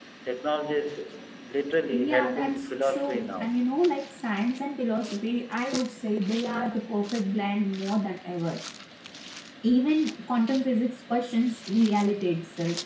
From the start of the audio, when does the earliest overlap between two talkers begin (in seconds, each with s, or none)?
1.9 s